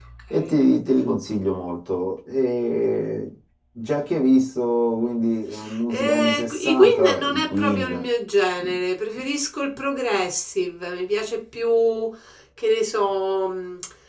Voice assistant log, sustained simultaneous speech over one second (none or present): present